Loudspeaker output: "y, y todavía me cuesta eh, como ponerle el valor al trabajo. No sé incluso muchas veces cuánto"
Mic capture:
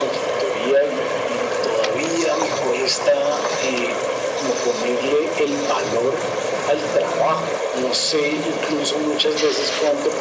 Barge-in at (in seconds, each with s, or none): none